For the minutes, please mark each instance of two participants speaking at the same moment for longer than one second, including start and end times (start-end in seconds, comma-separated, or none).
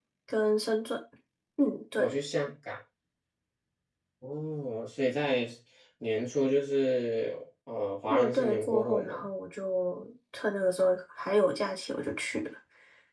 8.1-9.3